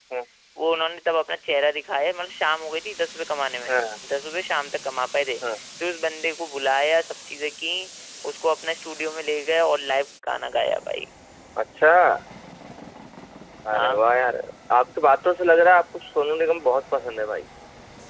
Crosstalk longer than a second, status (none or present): none